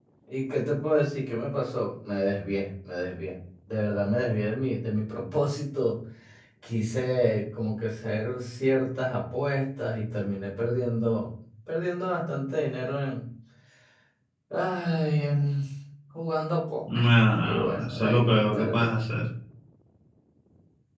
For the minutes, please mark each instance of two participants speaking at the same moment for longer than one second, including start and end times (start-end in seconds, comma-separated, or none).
16.9-18.8